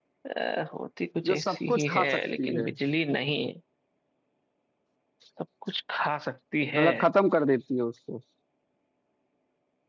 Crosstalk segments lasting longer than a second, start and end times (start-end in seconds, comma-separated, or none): 1.3-2.7